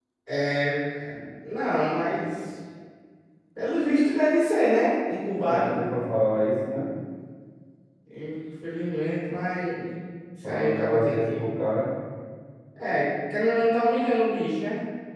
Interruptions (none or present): present